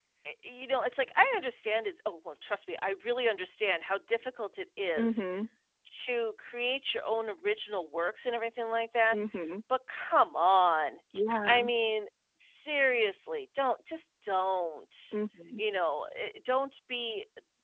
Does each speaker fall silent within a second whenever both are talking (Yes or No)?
Yes